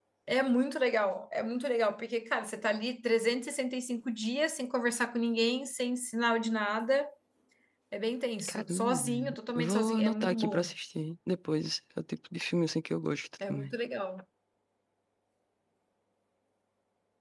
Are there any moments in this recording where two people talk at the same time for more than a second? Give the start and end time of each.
8.5-10.7

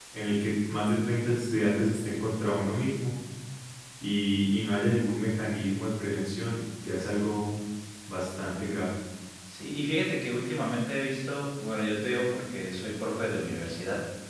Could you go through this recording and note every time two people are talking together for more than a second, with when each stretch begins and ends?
none

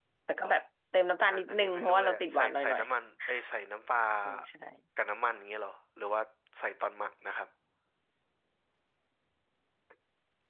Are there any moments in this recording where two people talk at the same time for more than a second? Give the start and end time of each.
1.3-2.8

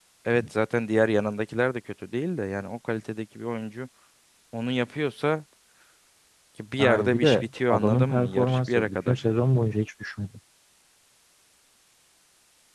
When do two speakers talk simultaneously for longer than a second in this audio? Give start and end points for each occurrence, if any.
6.8-9.1

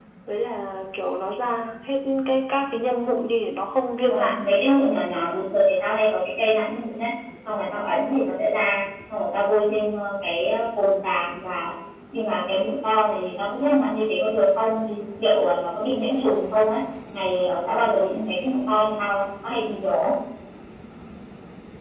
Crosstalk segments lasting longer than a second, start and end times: none

